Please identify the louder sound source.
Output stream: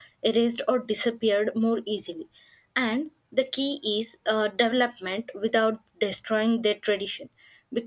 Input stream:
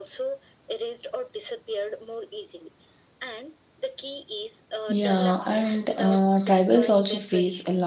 user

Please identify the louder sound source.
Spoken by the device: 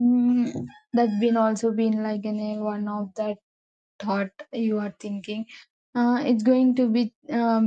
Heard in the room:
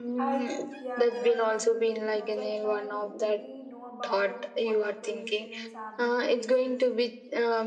echo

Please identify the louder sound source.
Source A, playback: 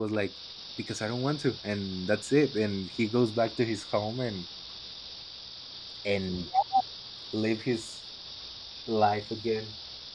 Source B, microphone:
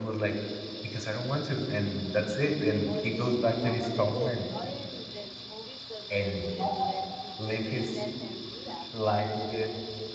echo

